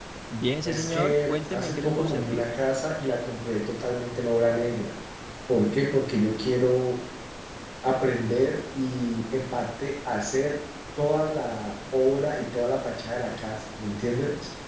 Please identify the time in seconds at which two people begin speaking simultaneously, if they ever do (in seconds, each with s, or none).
0.7 s